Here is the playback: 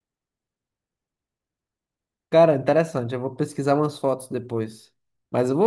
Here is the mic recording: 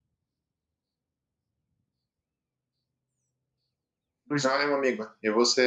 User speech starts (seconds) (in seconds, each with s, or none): 4.2 s